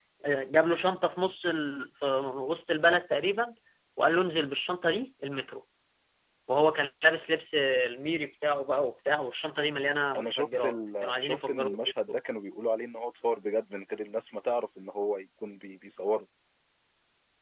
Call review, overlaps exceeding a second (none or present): present